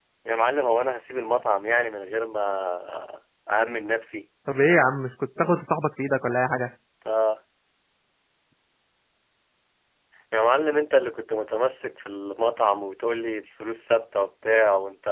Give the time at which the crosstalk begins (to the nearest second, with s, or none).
none